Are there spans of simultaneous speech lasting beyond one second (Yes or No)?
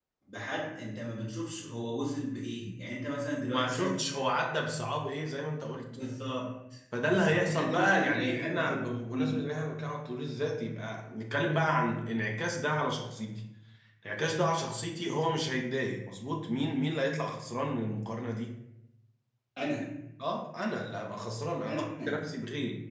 Yes